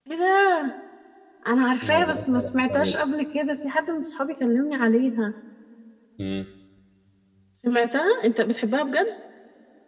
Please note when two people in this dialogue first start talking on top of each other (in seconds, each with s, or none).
1.8 s